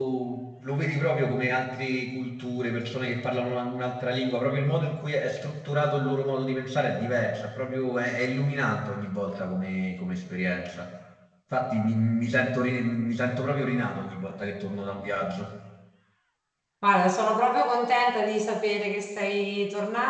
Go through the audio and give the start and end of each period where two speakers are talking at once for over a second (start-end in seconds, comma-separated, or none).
none